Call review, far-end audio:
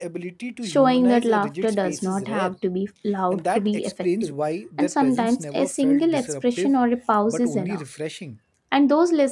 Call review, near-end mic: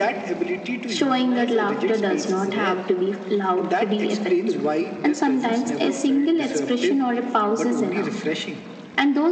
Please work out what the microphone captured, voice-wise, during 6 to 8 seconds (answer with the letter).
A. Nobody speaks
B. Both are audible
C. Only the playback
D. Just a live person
C